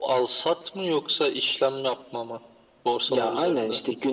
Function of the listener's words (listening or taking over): taking over